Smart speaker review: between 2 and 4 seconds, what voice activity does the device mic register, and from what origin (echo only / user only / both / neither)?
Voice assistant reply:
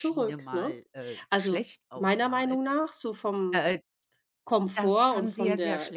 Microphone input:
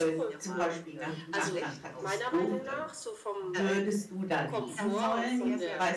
both